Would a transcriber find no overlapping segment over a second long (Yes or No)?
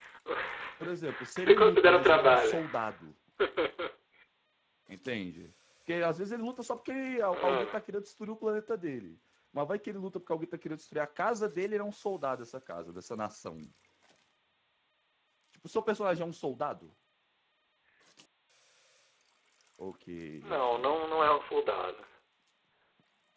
No